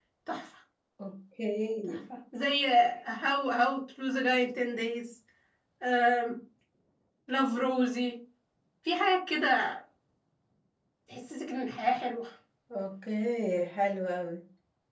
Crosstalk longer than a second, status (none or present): none